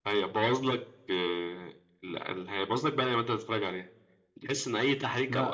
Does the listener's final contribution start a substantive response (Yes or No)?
No